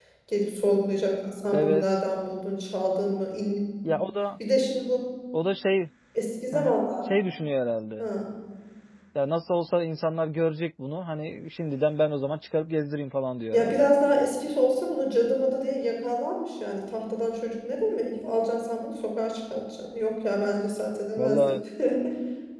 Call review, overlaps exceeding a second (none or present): none